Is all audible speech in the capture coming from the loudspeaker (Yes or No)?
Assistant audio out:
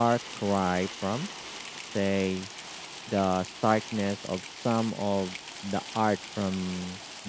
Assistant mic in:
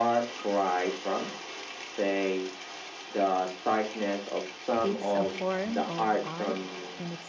No